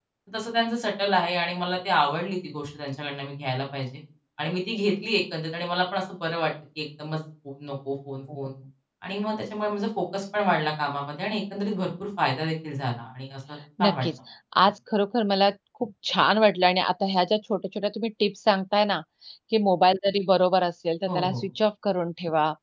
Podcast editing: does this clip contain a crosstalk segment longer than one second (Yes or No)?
No